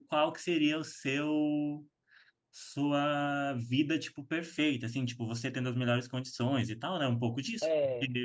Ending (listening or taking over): listening